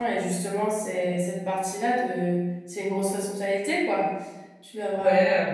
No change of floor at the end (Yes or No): No